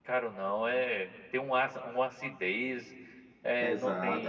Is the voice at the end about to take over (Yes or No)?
Yes